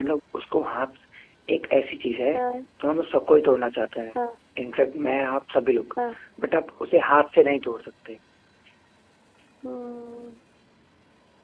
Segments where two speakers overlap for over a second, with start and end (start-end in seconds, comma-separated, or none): none